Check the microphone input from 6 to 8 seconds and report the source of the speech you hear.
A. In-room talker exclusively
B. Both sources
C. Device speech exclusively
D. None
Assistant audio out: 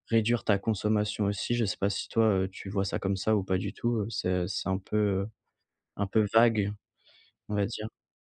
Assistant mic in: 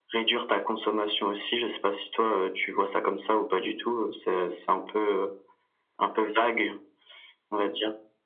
C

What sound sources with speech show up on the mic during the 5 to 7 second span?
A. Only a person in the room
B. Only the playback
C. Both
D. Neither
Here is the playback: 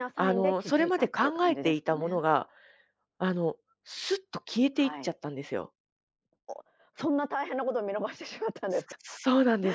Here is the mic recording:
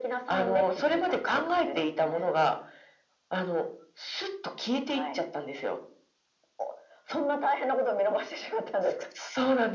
B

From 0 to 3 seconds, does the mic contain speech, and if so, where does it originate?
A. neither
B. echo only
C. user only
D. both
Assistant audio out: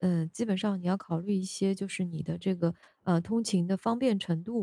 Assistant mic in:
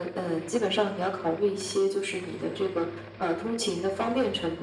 B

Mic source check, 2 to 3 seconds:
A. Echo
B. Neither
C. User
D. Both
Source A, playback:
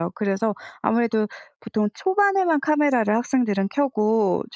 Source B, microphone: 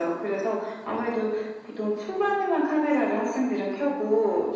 A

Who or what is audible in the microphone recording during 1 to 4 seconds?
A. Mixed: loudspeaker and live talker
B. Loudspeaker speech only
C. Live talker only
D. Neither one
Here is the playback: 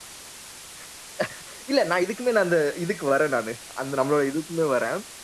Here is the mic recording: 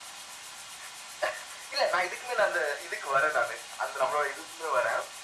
B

